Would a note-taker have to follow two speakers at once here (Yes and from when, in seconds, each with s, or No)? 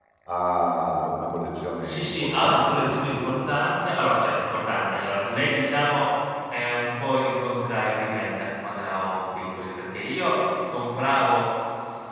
Yes, from 1.8 s